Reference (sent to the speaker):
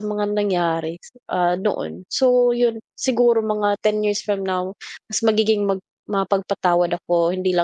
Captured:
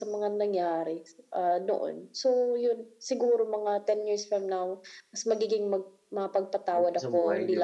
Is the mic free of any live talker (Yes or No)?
No